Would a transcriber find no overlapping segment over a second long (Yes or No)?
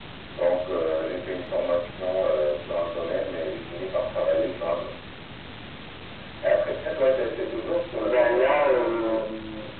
No